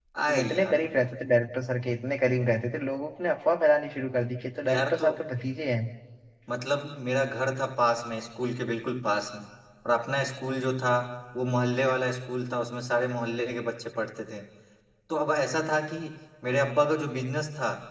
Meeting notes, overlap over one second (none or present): none